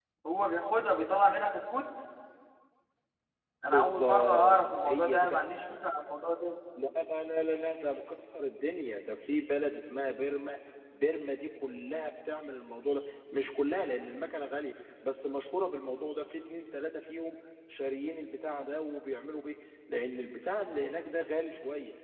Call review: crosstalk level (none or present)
present